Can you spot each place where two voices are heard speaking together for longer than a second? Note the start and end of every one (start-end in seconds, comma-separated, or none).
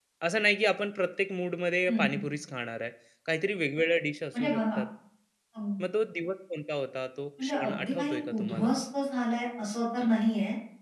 7.4-8.7